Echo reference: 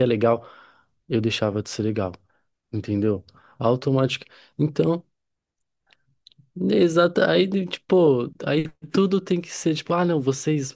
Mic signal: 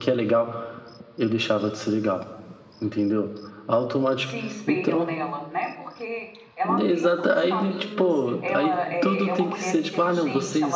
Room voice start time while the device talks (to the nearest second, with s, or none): 4 s